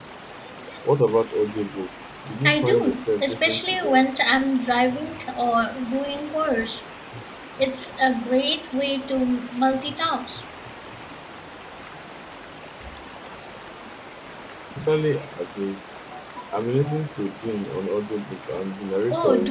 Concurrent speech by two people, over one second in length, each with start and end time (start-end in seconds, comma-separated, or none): 2.5-4.0